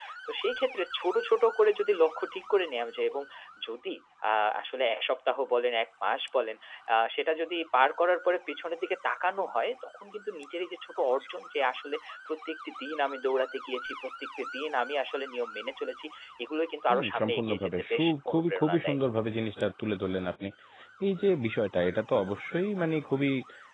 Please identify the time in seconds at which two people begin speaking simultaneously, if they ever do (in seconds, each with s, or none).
16.9 s